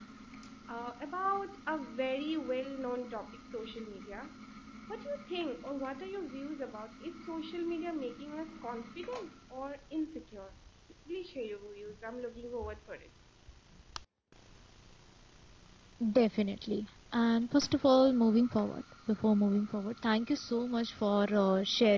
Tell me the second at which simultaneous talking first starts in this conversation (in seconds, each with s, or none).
none